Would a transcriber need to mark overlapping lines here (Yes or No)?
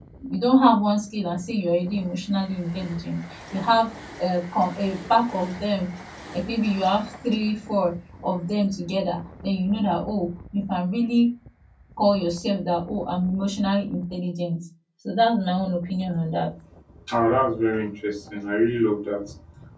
No